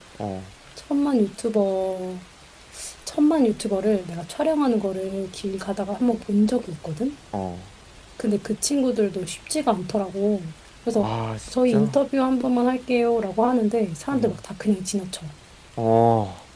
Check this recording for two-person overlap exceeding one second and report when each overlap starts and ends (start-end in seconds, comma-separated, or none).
none